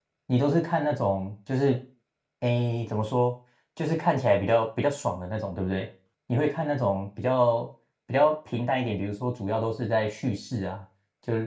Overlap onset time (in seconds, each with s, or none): none